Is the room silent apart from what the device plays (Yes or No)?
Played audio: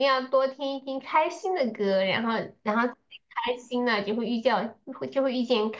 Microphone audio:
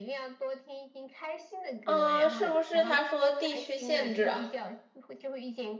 No